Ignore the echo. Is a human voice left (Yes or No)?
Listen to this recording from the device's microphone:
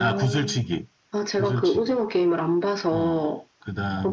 No